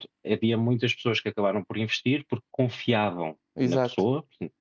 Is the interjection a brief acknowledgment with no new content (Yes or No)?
Yes